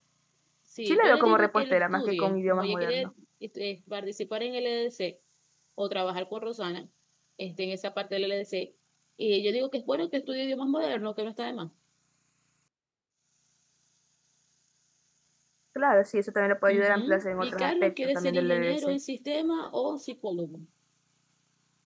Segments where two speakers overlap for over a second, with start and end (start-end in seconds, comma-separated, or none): 0.9-3.1, 16.7-19.0